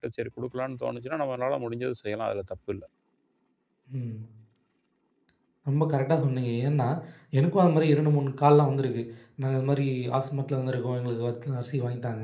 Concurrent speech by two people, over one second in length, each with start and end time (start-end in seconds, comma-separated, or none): none